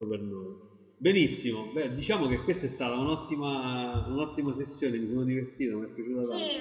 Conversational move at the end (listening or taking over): taking over